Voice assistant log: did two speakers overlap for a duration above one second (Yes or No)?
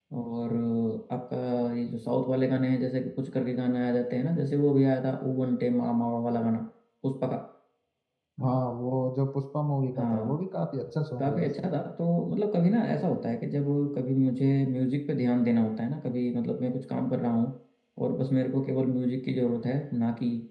No